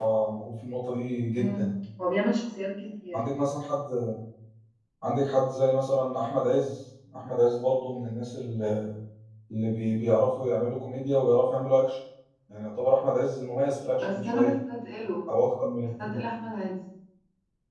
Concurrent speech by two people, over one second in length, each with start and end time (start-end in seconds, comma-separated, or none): none